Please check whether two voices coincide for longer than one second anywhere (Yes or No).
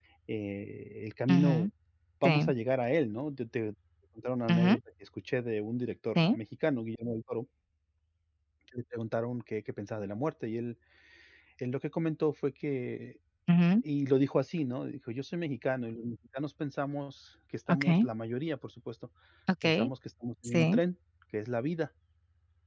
No